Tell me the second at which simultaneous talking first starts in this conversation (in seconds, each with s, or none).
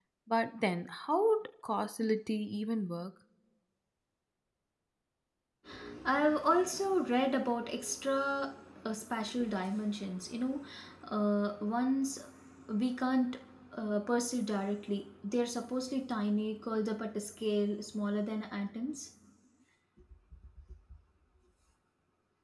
none